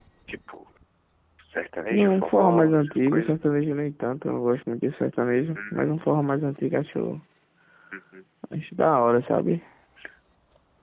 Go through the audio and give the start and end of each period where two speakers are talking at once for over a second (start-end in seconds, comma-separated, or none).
1.9-3.4